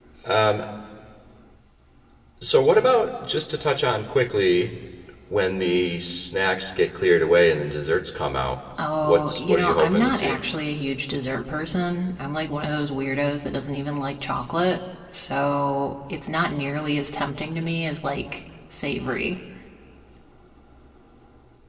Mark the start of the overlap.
9.0 s

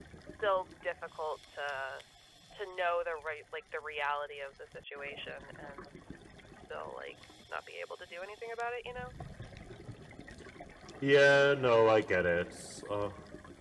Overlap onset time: none

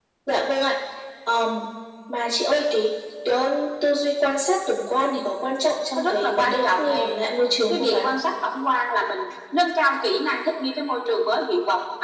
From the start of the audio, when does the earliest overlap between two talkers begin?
5.9 s

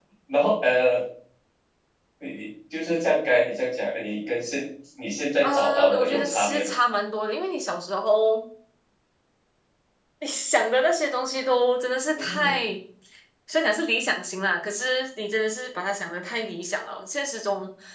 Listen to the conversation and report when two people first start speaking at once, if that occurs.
5.4 s

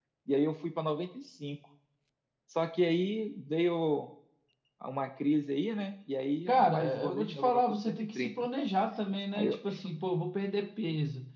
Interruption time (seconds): 6.5 s

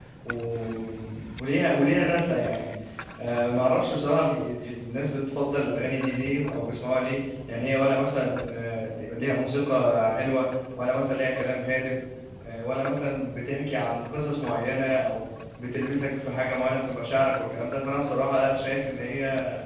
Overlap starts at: none

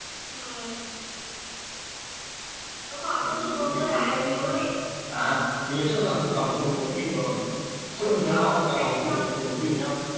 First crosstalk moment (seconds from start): 3.2 s

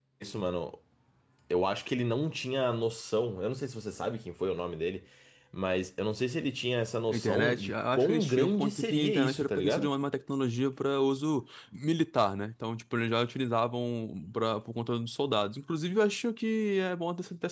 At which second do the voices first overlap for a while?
7.1 s

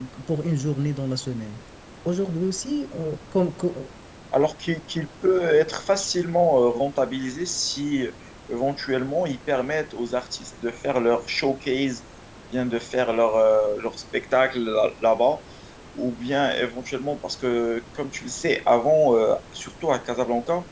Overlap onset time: none

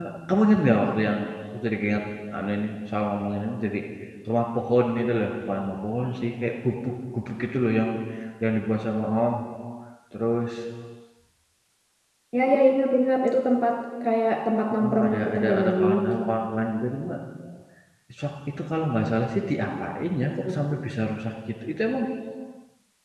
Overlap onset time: 14.7 s

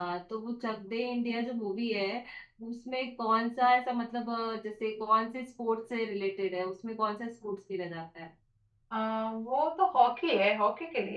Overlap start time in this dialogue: none

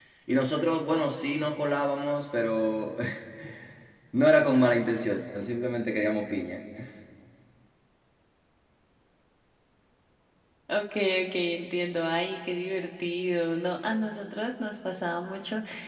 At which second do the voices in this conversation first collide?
none

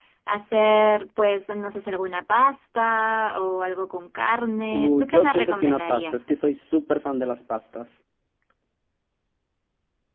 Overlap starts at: 4.7 s

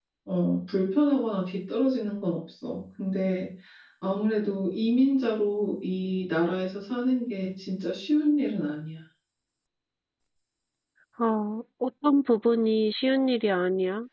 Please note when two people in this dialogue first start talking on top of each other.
none

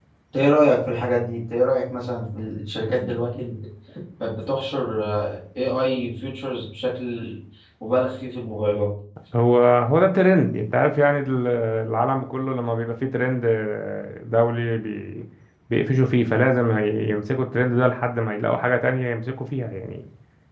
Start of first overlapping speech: none

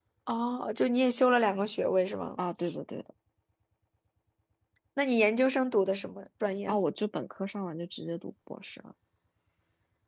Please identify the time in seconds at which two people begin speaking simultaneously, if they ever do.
none

